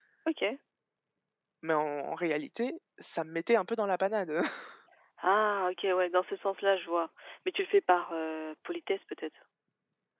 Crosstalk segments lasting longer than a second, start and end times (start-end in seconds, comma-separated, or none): none